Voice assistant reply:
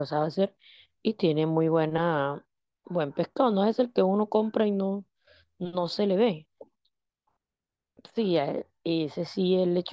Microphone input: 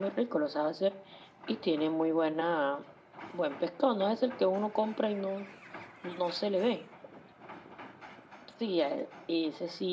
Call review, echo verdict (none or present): present